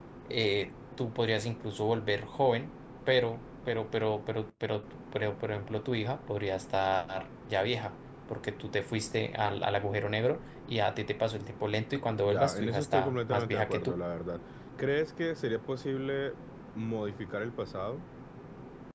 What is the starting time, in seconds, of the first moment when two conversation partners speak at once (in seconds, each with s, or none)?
12.2 s